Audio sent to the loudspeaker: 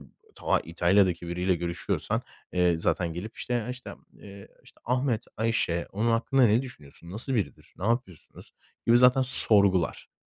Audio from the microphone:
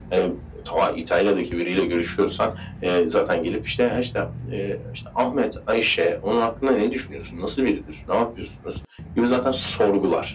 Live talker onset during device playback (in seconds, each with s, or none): none